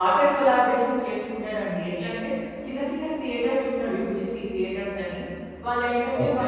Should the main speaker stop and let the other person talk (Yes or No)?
No